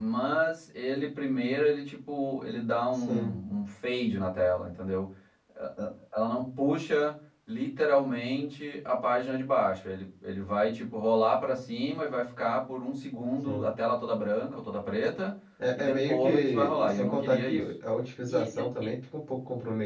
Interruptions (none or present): present